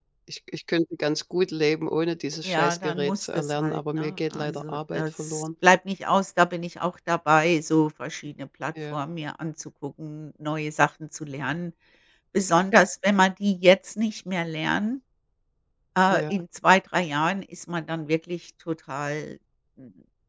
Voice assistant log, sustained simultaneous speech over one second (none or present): present